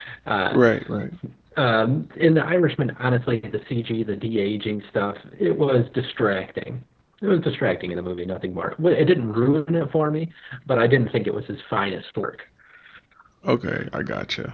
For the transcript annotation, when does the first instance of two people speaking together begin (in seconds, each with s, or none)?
none